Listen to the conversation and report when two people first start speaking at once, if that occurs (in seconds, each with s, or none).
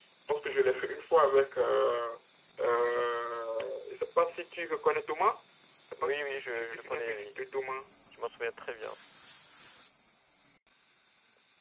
6.0 s